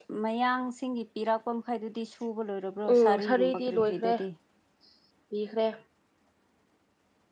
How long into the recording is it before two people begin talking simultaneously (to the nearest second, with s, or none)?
3 s